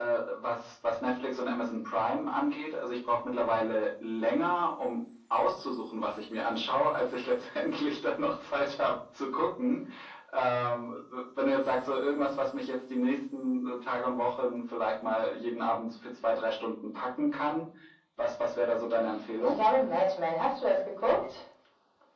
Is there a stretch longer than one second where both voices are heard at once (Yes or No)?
No